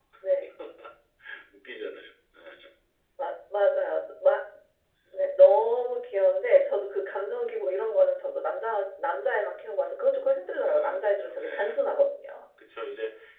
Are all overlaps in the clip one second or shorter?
No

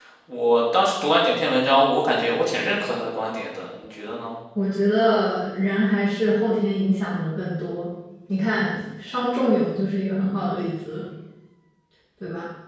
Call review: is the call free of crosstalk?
Yes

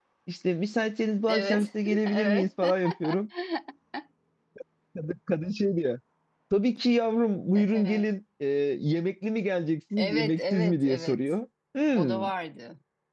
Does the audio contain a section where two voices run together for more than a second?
Yes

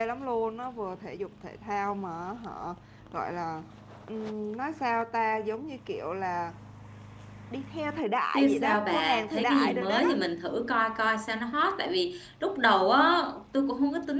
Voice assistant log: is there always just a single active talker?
No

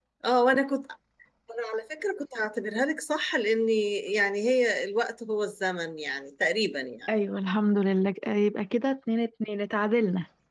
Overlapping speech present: No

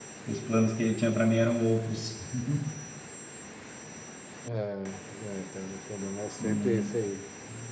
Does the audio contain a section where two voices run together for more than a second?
No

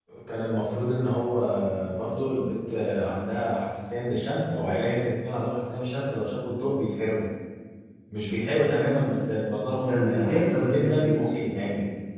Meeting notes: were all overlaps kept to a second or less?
No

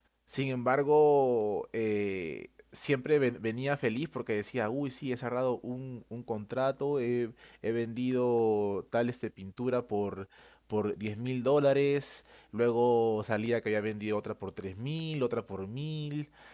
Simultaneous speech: No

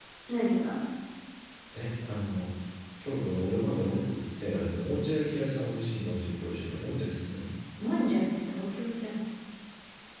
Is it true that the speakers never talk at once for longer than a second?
Yes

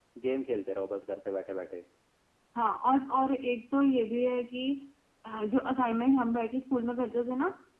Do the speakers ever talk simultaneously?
No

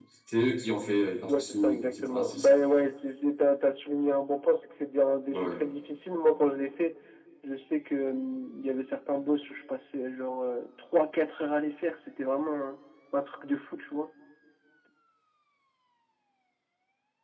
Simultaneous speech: Yes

